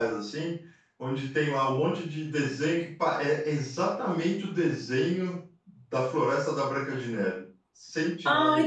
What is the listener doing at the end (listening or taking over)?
taking over